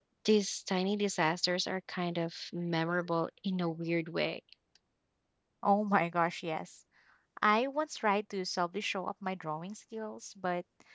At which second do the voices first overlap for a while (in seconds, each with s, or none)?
none